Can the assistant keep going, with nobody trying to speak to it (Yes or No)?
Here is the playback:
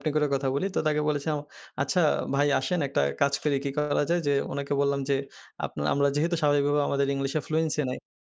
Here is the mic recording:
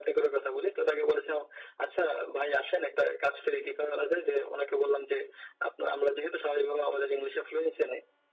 Yes